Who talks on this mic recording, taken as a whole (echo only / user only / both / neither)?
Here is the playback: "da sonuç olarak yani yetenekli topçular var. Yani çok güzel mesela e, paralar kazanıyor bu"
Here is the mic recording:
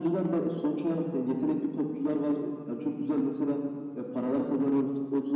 echo only